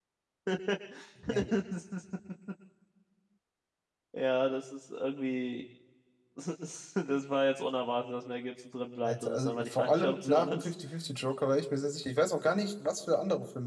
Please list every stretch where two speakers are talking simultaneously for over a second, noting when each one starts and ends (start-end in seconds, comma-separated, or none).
9.0-10.7